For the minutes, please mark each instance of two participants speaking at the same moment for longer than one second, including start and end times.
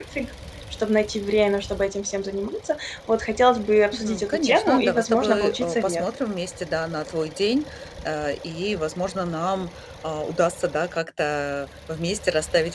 3.9-6.0

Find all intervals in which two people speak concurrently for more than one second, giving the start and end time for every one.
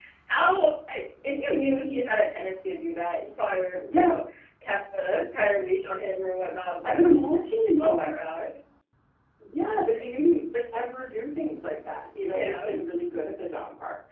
none

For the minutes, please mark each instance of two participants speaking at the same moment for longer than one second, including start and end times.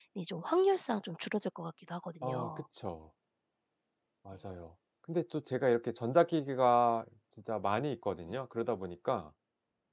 none

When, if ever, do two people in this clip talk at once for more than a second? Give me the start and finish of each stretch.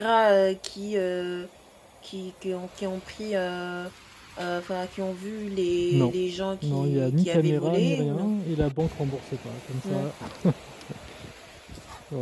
6.6-8.3

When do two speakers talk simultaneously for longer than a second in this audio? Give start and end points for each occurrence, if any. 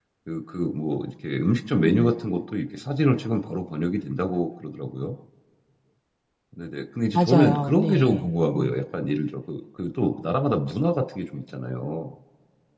7.1-8.8

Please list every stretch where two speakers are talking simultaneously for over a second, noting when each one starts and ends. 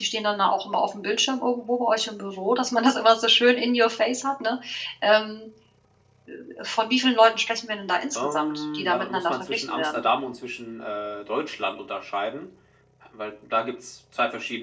8.2-10.1

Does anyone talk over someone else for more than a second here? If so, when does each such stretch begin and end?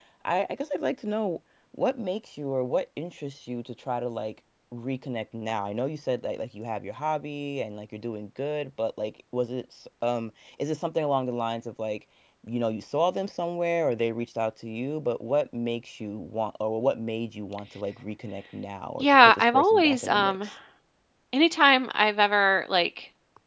19.0-20.4

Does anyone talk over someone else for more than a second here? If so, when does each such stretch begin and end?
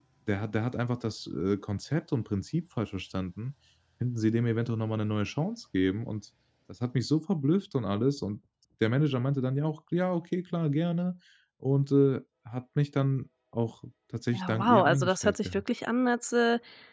14.3-15.6

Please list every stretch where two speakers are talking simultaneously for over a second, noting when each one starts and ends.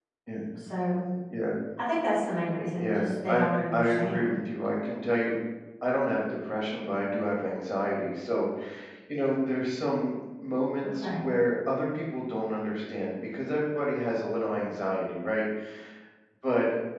2.8-4.3

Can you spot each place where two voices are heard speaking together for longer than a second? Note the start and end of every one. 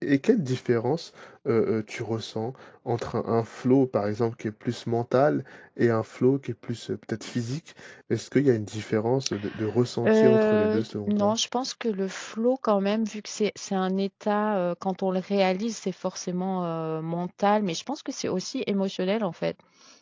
10.0-11.4

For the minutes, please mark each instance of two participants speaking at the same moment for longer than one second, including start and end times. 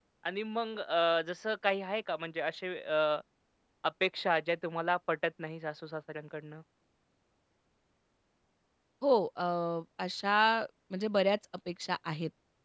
none

